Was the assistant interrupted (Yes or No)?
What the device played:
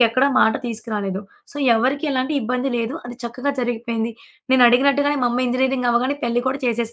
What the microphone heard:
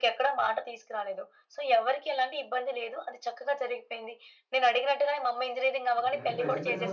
Yes